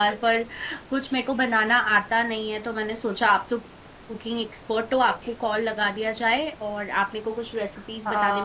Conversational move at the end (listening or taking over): taking over